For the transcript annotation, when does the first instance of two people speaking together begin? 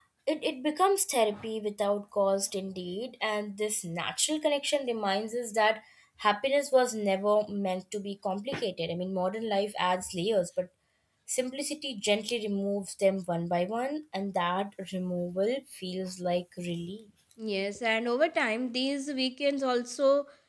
none

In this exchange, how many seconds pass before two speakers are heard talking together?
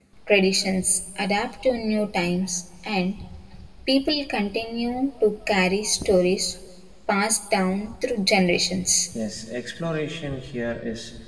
none

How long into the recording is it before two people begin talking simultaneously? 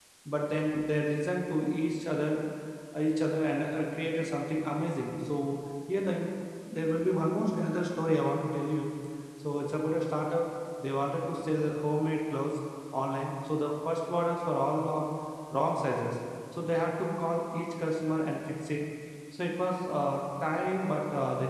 none

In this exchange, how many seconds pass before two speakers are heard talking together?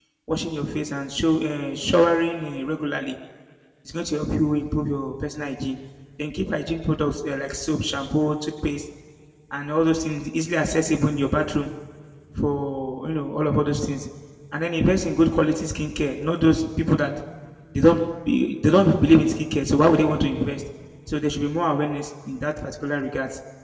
none

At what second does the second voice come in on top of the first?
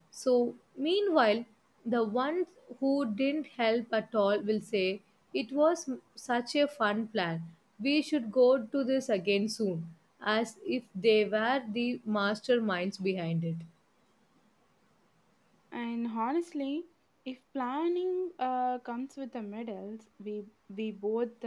none

